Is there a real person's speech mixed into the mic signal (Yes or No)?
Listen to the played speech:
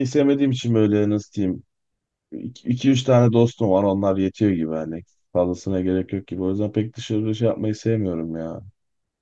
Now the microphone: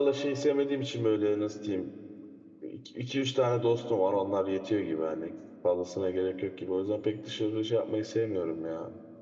No